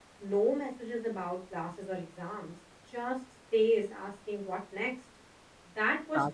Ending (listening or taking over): listening